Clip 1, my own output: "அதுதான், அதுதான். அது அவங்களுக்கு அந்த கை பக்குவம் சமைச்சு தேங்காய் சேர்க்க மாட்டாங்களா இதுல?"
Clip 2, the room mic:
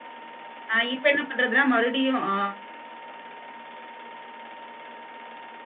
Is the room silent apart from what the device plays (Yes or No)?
No